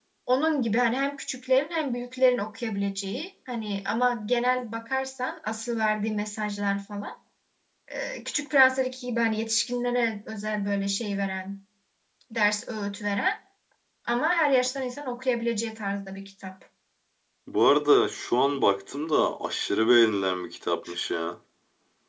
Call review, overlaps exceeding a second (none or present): none